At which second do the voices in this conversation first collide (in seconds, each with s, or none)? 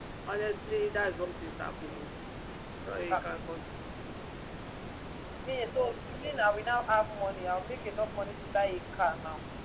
none